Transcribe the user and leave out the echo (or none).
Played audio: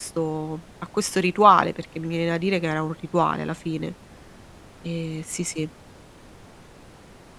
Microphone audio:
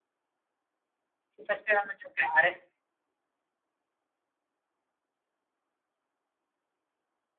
ti facevano giocare.